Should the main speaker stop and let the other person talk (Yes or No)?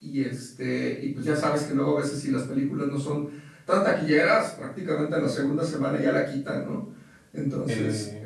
No